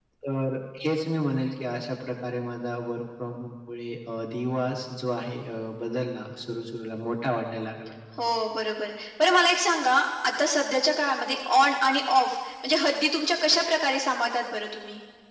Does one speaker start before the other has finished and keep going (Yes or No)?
No